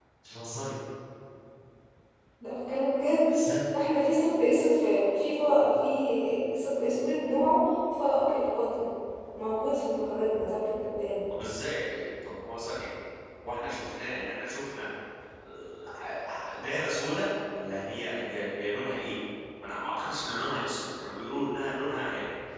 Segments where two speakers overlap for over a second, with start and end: none

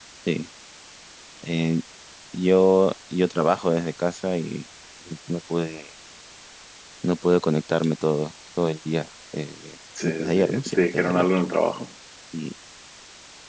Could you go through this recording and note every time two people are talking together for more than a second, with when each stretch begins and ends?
10.0-11.2

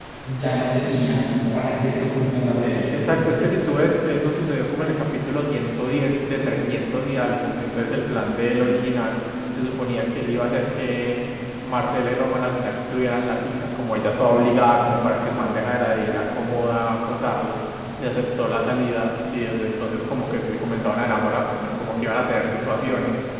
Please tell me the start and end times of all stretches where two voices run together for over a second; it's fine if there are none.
none

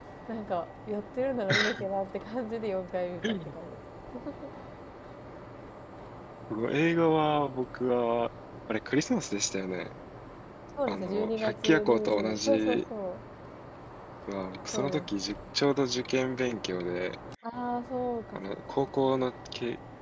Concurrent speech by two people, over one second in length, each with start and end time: 10.9-12.8

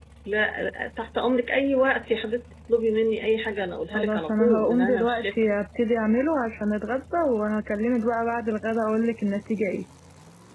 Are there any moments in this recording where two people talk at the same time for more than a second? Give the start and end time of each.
3.9-5.3

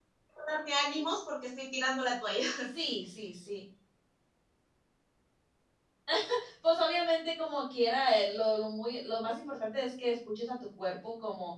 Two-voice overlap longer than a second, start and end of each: none

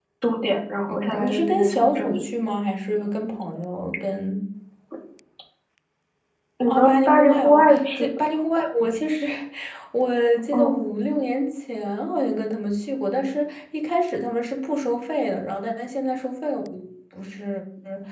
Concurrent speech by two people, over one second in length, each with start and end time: 0.9-2.1, 6.7-8.1

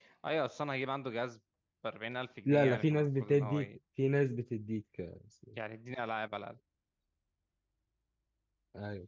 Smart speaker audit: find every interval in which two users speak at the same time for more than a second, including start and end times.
2.5-3.7

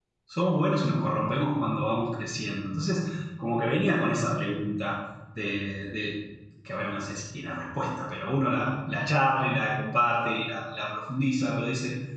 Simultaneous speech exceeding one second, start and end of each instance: none

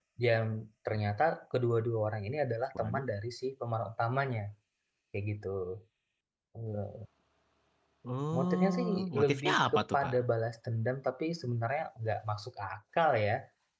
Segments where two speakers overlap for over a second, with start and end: 8.4-10.1

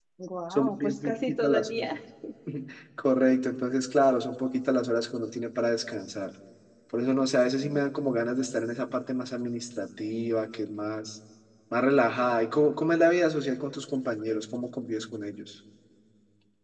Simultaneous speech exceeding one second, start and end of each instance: 0.5-1.9

